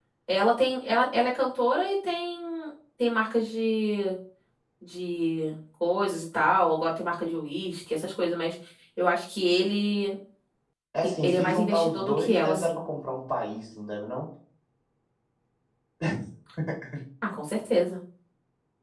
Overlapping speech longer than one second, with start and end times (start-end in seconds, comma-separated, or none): 11.0-12.8